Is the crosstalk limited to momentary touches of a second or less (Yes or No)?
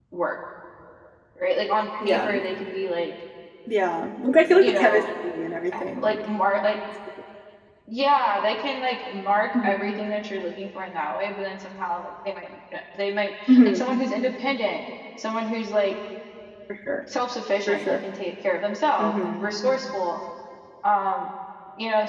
Yes